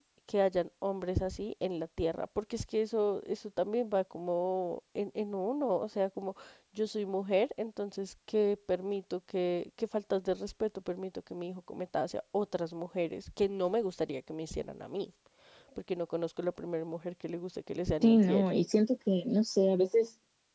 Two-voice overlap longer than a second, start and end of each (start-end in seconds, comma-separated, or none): none